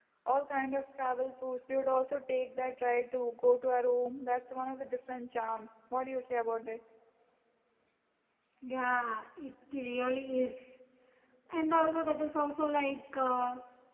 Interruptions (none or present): none